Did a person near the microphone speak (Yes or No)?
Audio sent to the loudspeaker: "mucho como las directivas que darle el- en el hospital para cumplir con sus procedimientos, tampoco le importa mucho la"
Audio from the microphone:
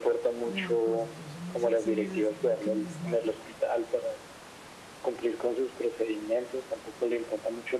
Yes